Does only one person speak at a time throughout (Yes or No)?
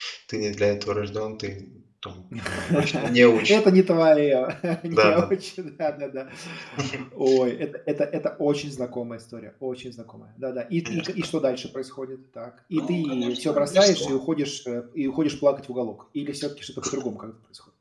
No